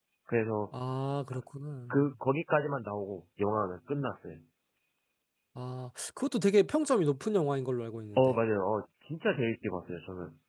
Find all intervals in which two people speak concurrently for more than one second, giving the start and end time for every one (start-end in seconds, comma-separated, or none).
none